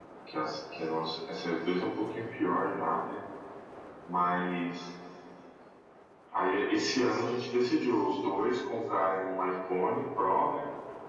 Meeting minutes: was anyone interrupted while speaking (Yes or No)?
No